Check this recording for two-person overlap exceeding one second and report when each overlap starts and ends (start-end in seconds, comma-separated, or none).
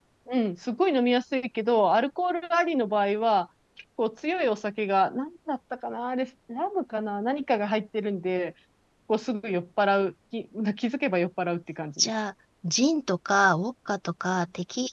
none